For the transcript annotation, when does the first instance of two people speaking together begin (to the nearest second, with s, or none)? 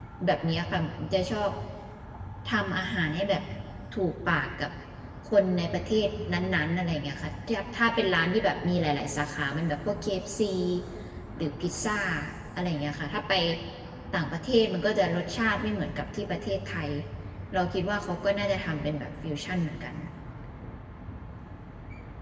none